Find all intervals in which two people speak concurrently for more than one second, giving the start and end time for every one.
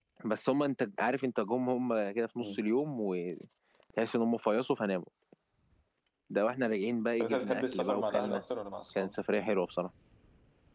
7.2-8.4

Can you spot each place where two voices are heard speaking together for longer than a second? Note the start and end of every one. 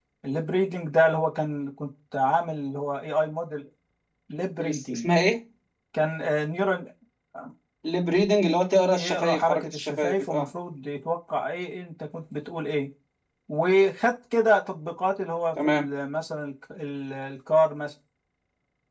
8.9-10.5

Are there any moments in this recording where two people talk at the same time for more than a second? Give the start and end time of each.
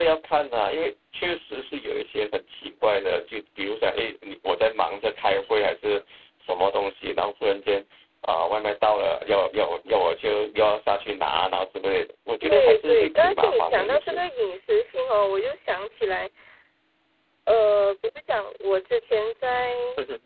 12.5-14.2

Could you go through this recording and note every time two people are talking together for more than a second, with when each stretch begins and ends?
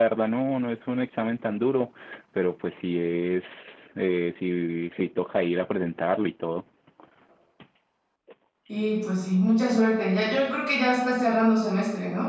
none

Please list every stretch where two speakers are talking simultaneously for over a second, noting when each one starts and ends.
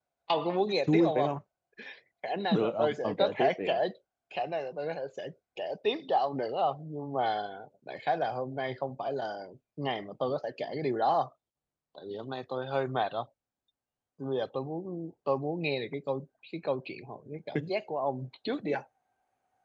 2.5-3.8

